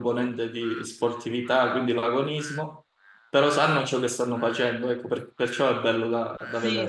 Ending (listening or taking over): taking over